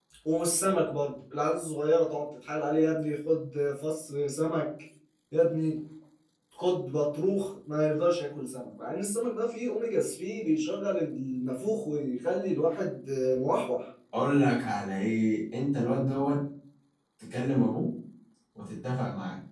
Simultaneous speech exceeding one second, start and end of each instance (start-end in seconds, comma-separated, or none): none